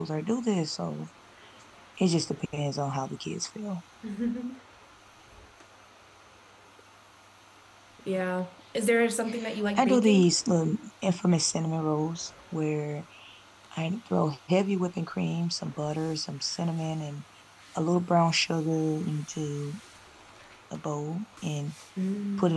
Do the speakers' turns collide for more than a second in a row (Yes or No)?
No